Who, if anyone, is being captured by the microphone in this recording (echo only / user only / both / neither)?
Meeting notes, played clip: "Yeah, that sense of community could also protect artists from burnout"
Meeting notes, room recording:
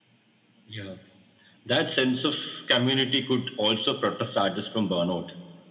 echo only